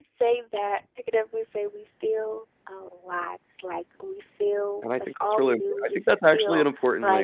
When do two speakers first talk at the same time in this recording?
5 s

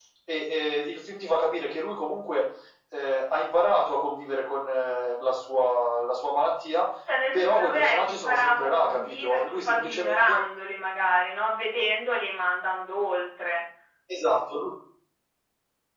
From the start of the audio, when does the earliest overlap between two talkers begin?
7 s

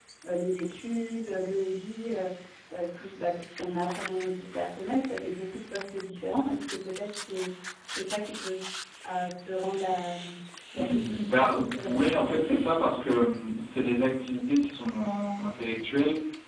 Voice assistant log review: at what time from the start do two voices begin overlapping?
11 s

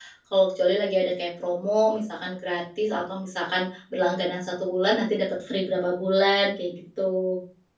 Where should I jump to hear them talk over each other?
none

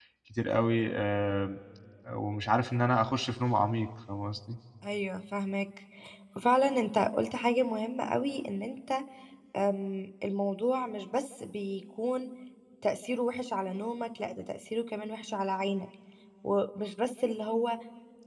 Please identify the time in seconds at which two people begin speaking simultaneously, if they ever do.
none

